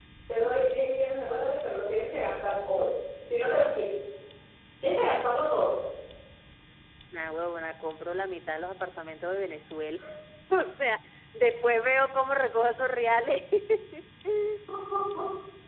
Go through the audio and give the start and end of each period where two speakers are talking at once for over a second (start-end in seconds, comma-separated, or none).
none